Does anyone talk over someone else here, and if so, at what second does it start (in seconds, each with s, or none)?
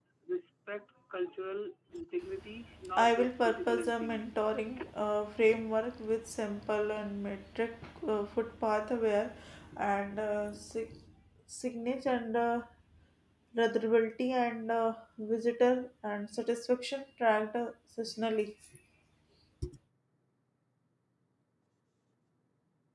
2.9 s